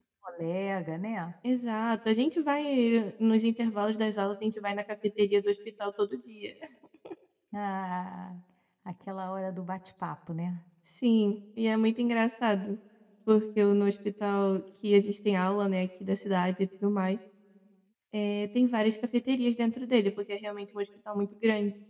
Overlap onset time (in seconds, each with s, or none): none